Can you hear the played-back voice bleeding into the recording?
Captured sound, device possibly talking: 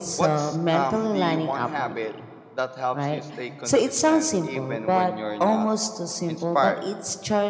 Yes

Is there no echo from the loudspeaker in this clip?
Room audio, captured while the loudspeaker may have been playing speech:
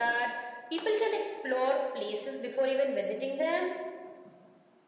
No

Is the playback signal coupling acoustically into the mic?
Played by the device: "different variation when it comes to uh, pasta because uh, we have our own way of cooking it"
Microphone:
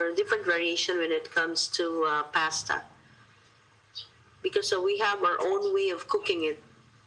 Yes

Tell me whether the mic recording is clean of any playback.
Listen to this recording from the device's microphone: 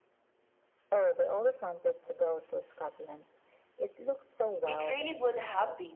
No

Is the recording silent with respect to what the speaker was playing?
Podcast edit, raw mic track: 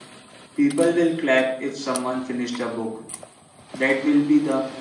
Yes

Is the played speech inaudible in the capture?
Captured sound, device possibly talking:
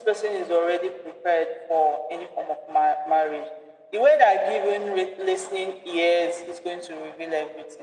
No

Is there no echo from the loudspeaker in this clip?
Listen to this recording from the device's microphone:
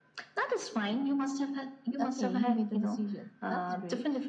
No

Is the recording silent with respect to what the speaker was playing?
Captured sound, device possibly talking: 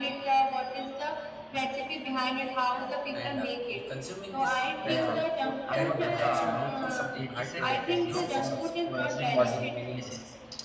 No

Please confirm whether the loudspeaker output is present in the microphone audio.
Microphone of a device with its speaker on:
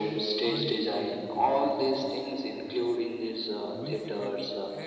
Yes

